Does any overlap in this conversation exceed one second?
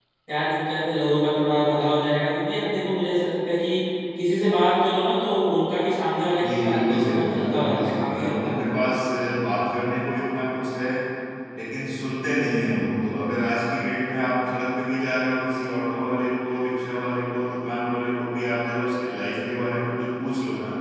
Yes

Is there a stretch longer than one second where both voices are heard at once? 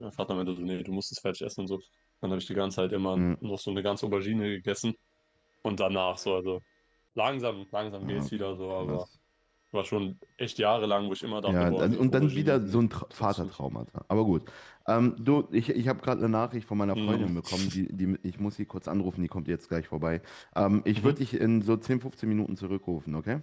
Yes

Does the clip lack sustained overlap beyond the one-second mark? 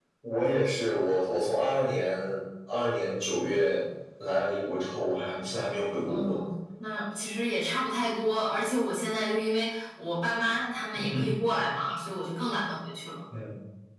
Yes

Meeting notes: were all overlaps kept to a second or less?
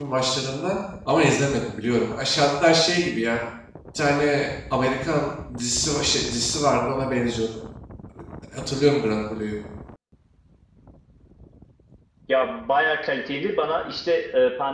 Yes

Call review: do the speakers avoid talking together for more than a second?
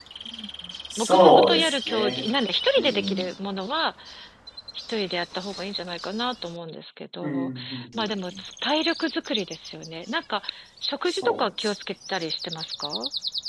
No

